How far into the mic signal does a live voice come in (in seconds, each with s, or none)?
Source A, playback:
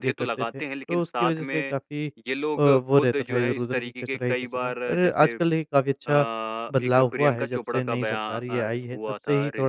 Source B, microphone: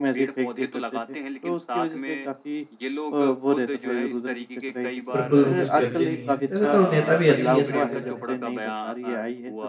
5.1 s